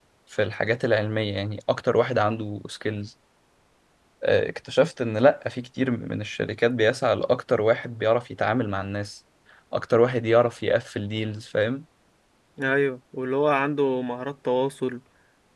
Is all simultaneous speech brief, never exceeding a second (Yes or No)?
Yes